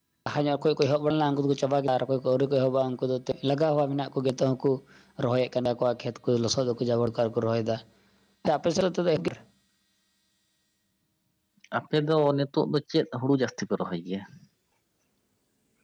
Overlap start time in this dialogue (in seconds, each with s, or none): none